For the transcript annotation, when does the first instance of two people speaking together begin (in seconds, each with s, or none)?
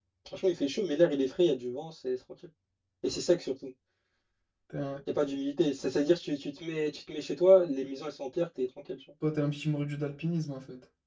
none